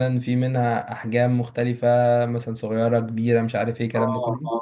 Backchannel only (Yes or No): No